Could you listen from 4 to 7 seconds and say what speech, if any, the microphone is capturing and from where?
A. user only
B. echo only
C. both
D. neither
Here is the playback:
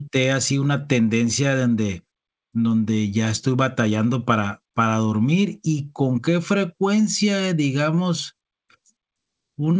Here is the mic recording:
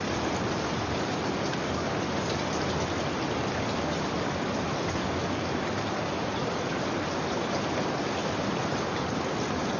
D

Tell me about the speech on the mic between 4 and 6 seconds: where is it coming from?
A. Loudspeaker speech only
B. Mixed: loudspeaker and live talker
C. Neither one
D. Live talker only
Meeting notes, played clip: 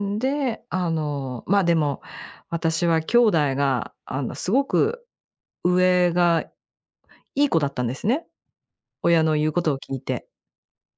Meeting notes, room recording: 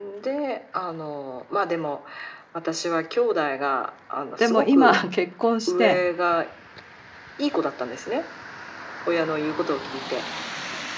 B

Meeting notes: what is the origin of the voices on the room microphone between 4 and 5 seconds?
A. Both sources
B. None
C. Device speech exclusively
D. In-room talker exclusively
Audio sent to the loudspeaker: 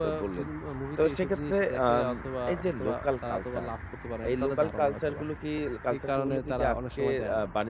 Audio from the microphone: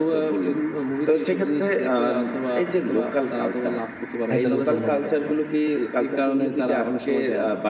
A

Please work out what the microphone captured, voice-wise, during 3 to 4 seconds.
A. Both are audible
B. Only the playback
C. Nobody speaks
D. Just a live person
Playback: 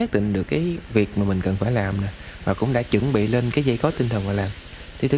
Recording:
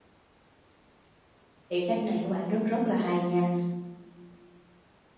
D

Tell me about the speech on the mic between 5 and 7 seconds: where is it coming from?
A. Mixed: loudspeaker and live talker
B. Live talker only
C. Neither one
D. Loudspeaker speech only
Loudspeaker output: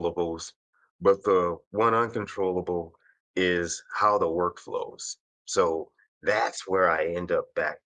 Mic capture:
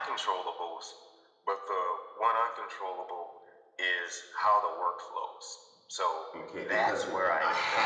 A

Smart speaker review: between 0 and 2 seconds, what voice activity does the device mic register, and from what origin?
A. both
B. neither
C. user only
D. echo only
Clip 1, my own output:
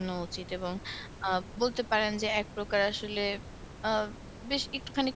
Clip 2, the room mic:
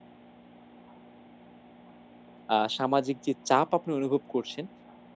B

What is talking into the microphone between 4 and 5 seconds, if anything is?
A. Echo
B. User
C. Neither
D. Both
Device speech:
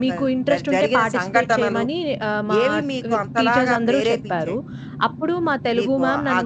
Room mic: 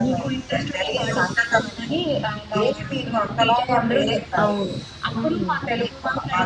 D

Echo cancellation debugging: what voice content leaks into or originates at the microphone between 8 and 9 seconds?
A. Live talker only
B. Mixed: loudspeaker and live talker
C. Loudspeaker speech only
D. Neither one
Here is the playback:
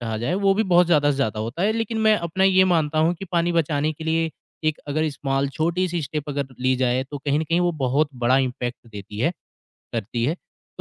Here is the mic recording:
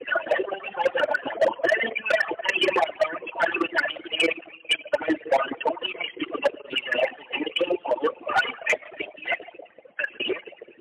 C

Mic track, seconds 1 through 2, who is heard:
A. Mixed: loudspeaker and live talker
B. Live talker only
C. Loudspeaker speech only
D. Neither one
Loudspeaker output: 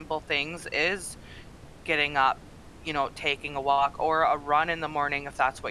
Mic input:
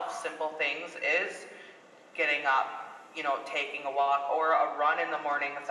C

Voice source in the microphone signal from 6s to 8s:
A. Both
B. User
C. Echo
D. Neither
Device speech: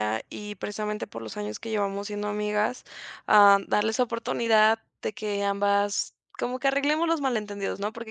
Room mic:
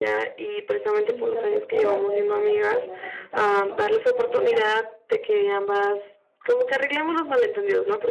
C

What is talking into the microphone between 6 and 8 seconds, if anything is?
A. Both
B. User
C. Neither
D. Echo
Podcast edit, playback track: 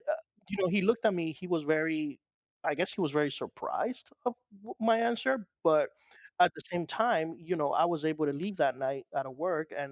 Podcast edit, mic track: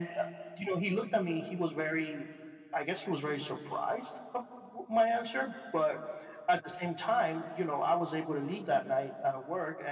D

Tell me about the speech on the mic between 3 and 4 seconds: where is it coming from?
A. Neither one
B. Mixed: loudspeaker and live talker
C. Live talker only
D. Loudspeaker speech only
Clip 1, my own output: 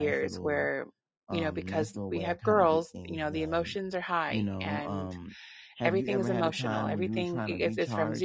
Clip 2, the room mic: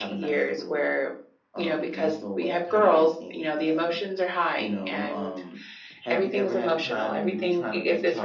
D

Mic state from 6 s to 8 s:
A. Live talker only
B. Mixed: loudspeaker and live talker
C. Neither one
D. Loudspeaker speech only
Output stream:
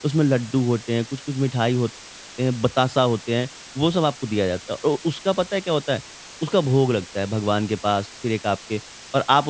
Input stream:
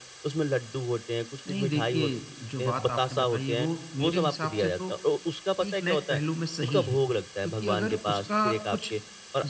B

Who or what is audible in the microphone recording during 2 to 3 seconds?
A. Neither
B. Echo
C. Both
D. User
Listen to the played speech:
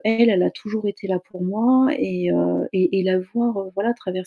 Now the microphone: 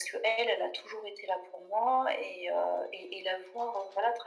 B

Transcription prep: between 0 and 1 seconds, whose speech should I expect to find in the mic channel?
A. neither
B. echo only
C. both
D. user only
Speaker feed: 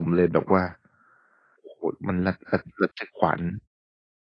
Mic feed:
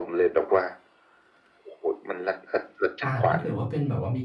B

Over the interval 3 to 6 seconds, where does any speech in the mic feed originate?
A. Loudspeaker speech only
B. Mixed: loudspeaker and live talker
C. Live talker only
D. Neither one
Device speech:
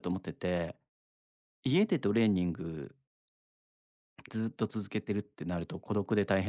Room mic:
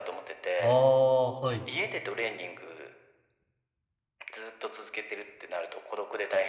A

